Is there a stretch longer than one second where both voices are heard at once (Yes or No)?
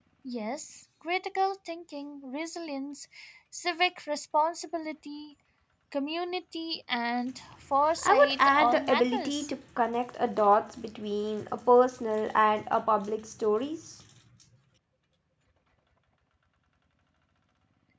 Yes